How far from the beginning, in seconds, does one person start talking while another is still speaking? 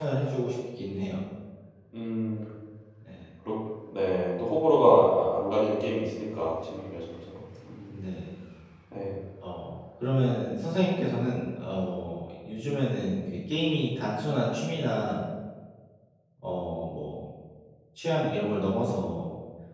none

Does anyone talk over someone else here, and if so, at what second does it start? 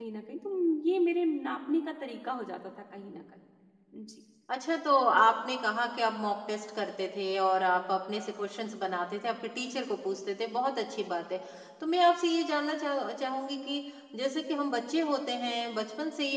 none

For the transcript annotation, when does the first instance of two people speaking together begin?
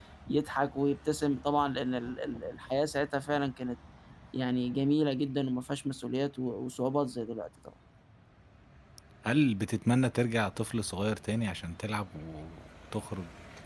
none

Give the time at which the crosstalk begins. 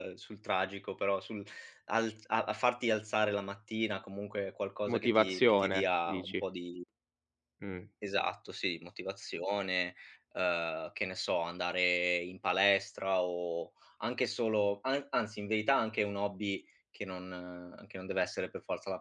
5 s

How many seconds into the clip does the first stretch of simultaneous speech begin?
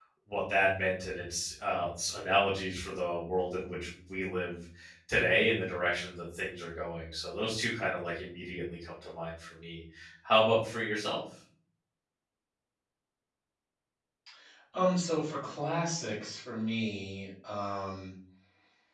none

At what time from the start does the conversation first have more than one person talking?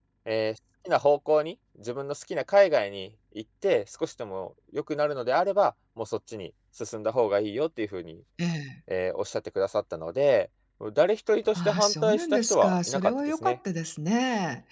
12 s

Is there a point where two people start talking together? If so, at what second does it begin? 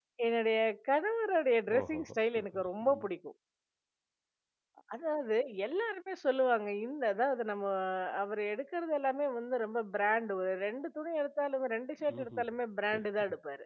2 s

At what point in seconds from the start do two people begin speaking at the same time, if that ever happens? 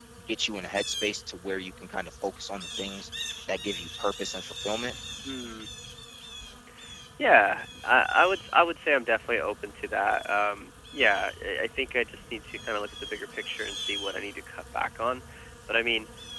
none

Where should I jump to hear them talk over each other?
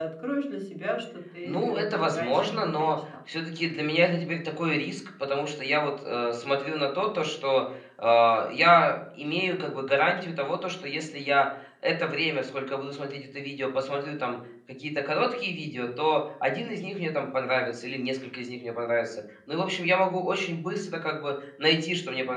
1 s

